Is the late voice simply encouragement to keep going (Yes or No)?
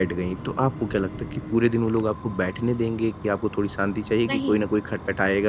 Yes